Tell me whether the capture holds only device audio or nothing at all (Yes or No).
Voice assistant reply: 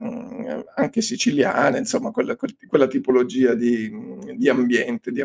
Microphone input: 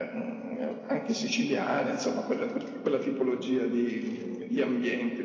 Yes